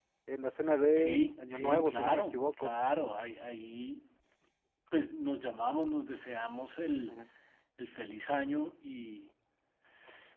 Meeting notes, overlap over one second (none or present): present